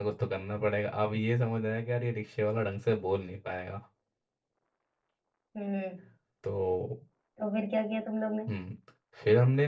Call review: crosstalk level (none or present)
none